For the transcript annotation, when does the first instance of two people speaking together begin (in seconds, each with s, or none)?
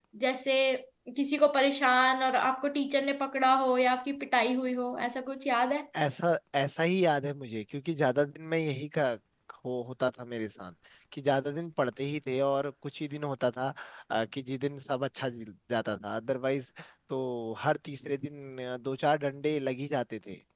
none